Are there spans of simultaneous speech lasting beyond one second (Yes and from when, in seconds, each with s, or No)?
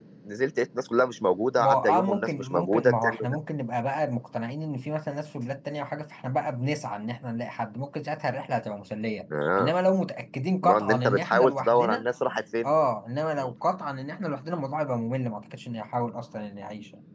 Yes, from 1.6 s